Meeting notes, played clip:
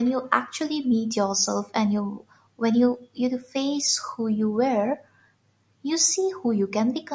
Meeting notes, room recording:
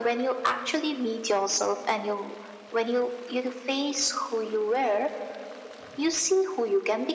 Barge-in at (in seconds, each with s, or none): none